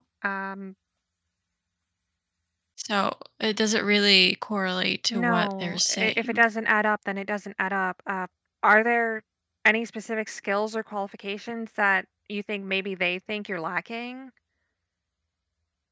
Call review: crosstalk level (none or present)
present